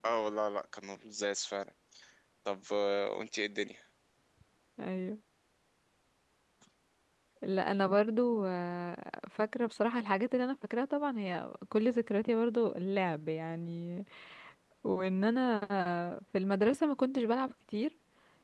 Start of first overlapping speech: none

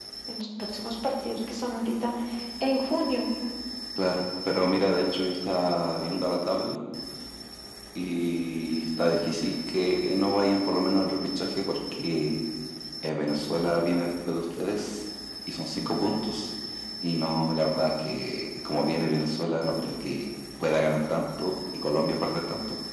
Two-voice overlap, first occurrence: none

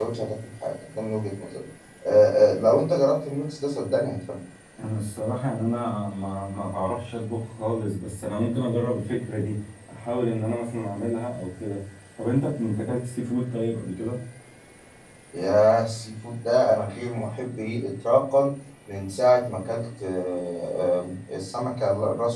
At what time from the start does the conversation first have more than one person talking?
none

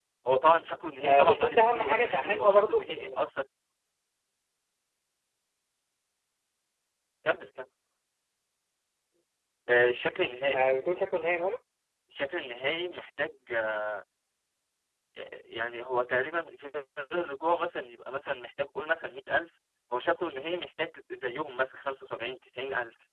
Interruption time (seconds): 1.0 s

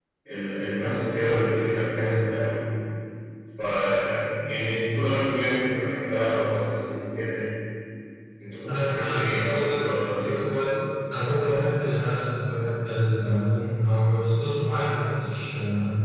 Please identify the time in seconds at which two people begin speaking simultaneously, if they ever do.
8.7 s

